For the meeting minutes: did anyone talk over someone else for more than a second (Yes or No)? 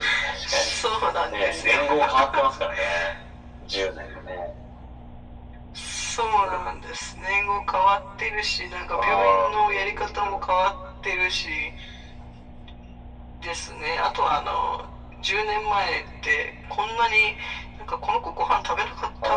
Yes